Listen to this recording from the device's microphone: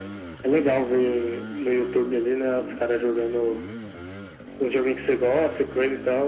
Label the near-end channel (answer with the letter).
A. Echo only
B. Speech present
A